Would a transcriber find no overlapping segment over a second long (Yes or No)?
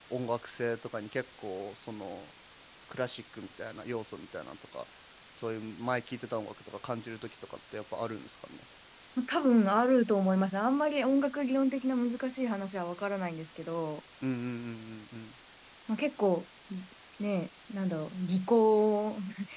Yes